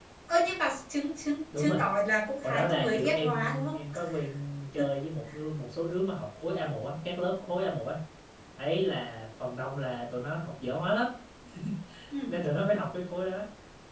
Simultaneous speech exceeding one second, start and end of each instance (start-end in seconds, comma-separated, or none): 2.4-3.8